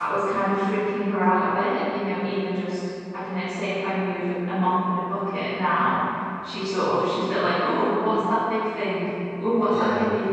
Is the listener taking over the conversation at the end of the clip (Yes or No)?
No